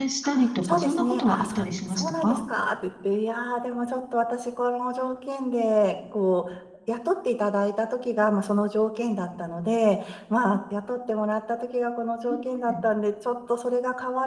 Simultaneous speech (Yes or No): Yes